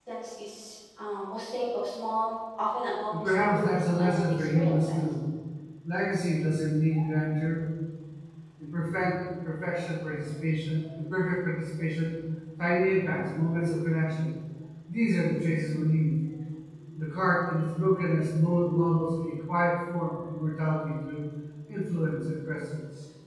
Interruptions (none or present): present